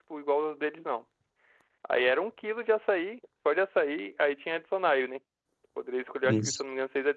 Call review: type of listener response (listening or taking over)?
listening